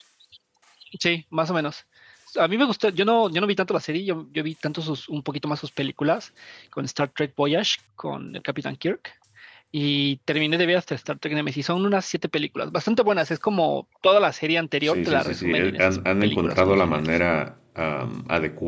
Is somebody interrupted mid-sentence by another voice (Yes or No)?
Yes